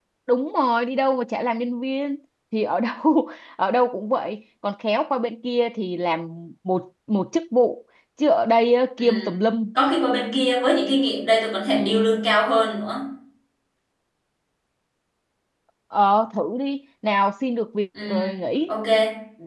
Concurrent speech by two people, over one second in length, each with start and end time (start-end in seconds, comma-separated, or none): none